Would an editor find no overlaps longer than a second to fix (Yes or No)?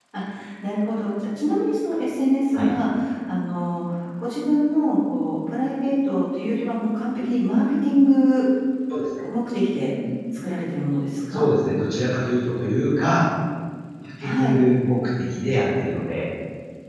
Yes